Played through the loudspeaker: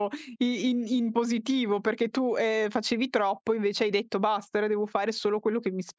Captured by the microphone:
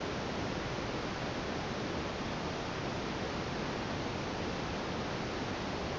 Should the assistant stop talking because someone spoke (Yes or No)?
No